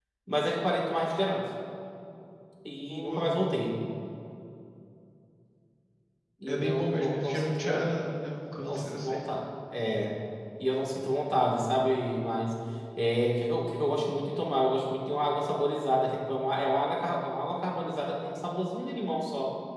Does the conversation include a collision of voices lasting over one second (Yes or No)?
Yes